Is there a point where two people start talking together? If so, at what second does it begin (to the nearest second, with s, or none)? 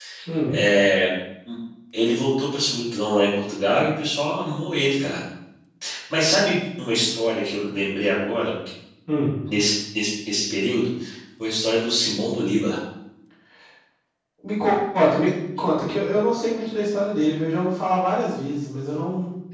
none